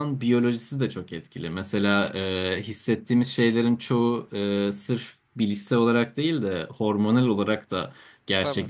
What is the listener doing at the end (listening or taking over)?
listening